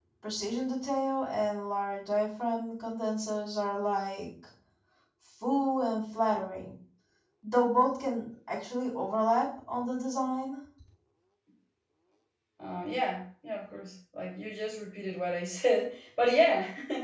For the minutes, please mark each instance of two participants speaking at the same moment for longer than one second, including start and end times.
none

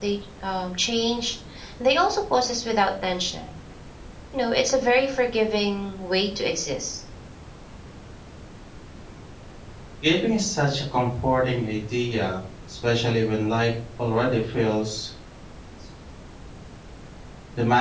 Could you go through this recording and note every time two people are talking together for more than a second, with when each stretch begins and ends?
none

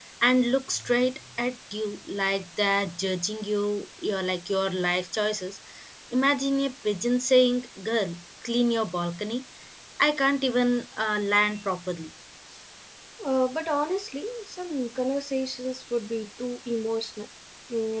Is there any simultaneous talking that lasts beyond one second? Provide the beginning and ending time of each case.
none

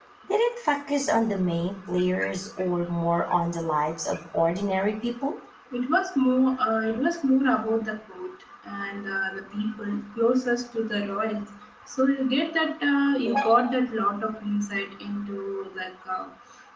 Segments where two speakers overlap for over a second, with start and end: none

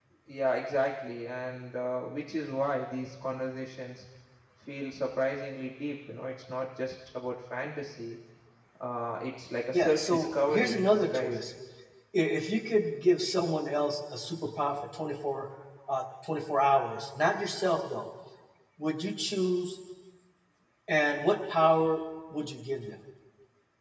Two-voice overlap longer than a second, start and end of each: 9.7-11.4

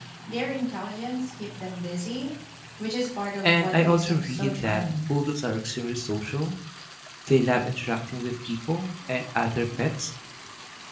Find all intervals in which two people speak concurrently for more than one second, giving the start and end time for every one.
3.4-4.8

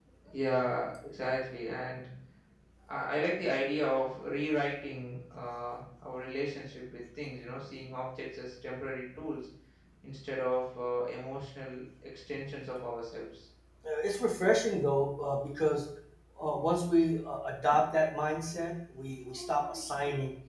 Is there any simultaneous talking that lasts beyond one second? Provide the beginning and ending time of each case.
none

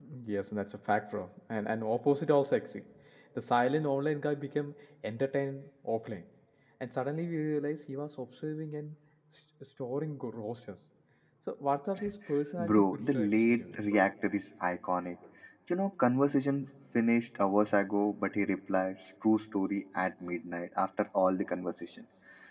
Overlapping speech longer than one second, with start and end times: 12.6-13.8

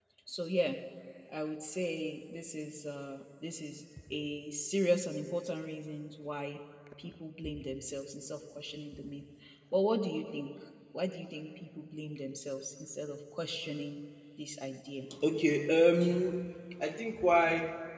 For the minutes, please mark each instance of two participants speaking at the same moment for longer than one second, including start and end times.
none

